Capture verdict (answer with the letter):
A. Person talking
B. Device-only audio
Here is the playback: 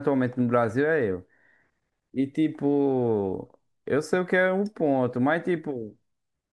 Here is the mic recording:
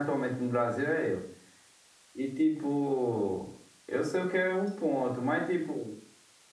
B